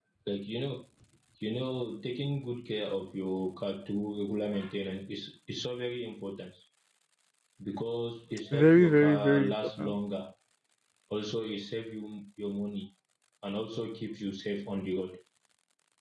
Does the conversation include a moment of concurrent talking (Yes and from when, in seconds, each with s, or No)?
Yes, from 8.5 s